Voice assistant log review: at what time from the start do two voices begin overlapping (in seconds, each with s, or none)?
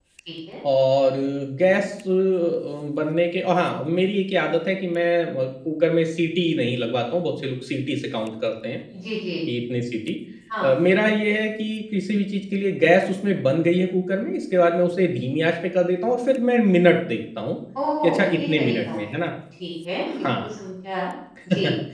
18.0 s